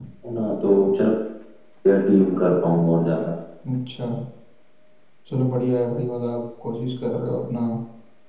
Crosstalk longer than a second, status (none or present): none